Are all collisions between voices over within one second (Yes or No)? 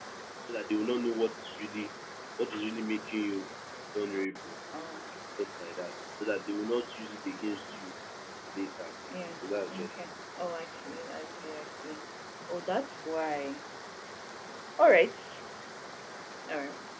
Yes